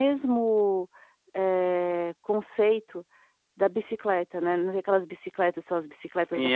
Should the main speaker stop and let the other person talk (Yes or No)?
Yes